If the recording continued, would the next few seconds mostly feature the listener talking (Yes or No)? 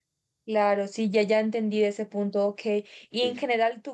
No